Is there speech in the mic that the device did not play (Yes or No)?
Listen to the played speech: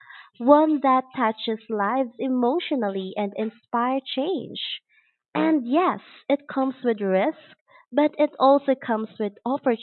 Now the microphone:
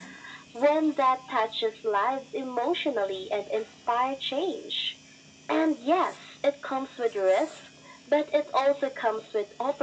No